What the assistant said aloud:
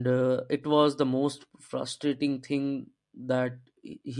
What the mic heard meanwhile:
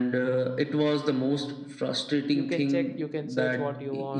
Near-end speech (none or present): present